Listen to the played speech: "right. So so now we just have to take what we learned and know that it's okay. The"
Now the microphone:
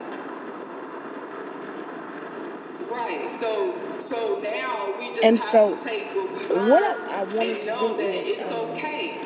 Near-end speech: present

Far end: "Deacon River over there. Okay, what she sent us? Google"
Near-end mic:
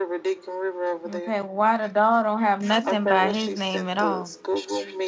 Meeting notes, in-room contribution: present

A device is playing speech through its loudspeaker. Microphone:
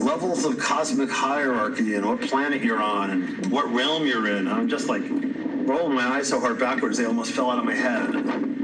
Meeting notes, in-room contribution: none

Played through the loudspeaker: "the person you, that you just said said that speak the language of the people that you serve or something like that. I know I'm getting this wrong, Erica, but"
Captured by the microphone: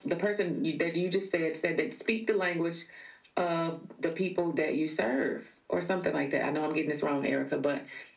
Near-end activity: none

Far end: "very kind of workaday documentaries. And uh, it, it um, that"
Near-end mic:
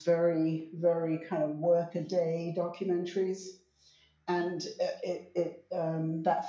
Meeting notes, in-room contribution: none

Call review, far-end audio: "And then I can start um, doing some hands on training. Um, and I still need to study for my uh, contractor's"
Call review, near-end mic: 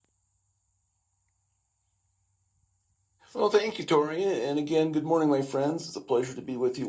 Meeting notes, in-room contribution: present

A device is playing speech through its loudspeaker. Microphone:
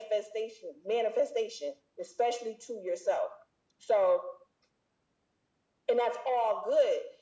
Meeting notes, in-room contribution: none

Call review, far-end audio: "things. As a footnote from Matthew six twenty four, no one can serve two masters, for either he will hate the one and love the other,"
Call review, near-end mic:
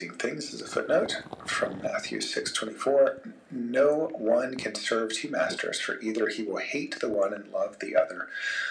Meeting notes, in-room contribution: none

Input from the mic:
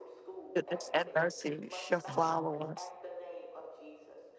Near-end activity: present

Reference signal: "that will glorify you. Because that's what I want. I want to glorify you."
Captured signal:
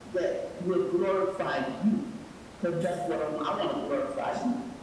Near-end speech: none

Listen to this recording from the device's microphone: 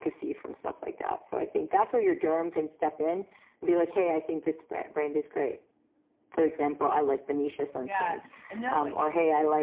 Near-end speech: present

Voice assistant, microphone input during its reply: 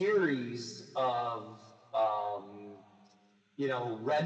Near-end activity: none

